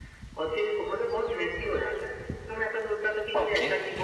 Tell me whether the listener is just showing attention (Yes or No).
Yes